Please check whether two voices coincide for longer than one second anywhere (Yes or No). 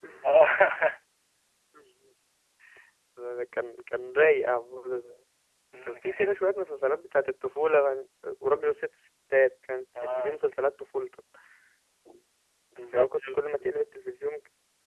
No